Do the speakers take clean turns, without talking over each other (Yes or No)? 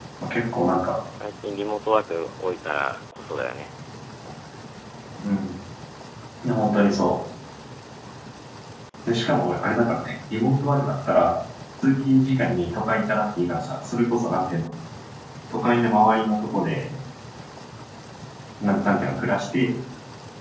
Yes